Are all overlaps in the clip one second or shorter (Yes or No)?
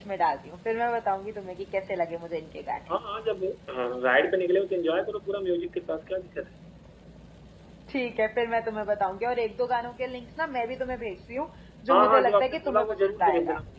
No